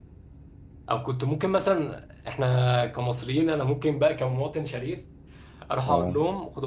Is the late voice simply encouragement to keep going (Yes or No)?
Yes